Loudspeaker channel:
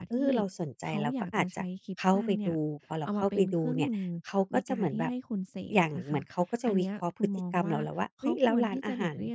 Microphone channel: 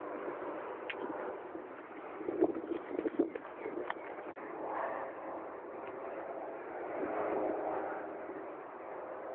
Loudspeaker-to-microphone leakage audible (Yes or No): No